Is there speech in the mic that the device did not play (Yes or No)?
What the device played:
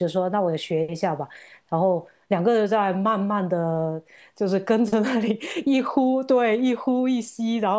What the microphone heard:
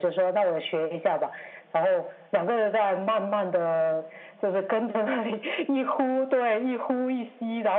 No